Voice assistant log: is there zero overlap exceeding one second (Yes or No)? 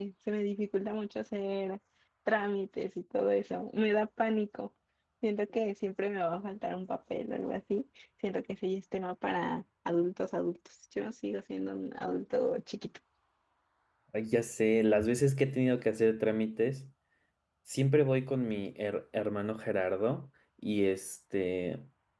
Yes